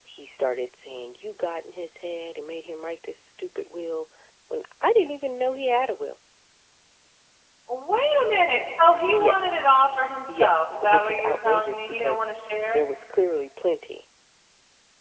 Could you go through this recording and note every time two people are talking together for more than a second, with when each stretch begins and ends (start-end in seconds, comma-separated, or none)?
10.3-12.2